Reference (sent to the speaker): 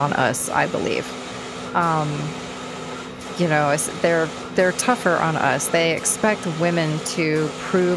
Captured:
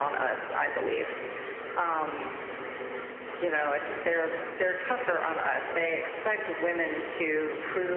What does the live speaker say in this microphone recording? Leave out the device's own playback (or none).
none